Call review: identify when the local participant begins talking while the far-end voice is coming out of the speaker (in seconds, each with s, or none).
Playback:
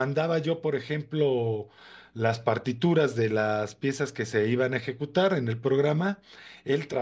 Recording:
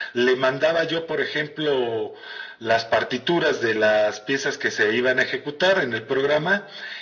none